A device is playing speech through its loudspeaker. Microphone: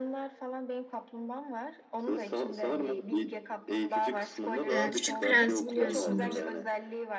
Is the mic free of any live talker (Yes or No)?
No